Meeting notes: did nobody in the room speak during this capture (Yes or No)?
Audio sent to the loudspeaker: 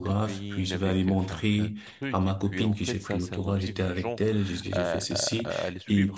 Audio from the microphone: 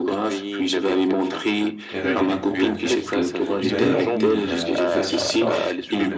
No